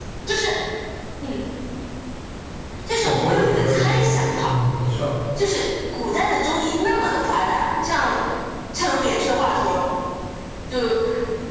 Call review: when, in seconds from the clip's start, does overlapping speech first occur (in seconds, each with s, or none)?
3.0 s